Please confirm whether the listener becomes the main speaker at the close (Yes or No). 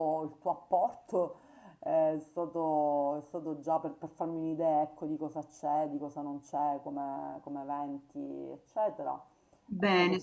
Yes